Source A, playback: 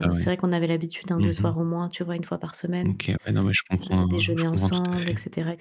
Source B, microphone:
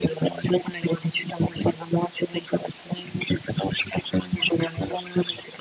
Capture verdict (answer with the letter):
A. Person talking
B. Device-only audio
B